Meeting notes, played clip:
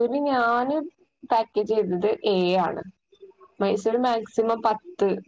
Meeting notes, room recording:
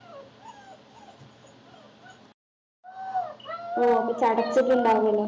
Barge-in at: 3.8 s

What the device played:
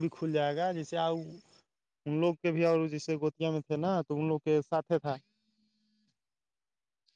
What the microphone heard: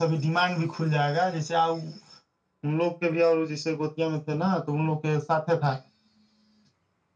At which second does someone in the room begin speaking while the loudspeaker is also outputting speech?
none

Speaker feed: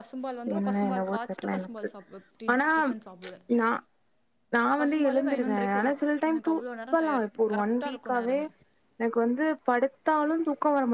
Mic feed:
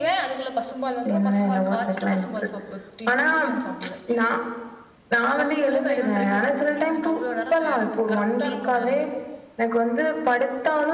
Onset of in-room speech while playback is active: none

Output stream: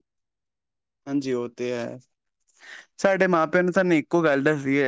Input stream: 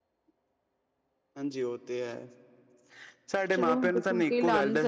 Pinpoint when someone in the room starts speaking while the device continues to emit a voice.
3.5 s

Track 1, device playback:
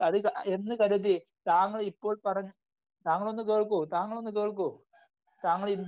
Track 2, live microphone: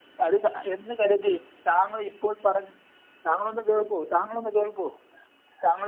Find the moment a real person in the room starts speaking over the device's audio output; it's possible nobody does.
none

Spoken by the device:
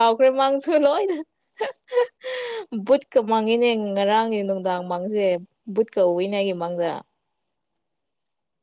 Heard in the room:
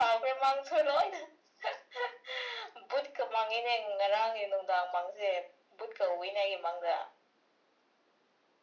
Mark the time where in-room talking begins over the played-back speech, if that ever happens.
none

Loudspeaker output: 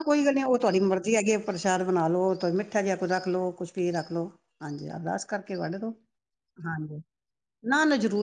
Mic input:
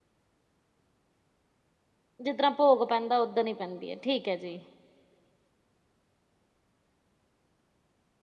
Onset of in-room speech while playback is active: 2.2 s

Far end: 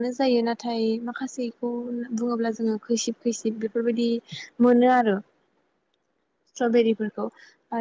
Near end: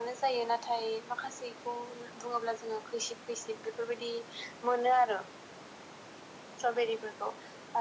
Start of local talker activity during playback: none

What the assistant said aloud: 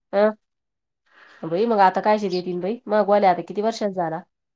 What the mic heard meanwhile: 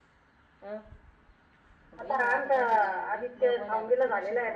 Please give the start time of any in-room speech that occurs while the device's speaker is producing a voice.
2.0 s

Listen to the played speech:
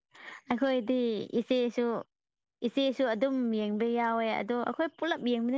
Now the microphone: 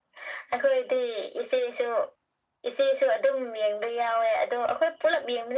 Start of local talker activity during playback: none

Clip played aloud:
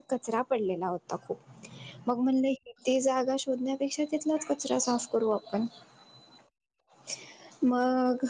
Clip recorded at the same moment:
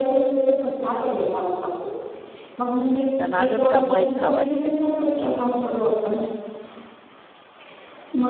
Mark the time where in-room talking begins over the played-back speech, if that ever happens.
3.2 s

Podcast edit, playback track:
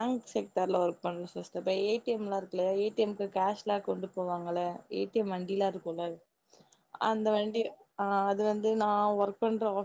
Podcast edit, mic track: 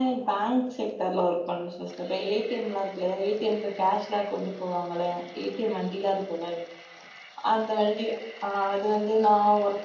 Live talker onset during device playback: none

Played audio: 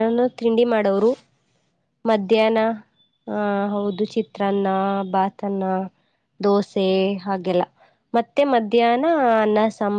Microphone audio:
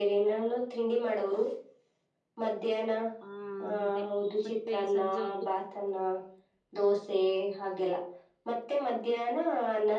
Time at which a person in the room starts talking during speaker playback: 3.3 s

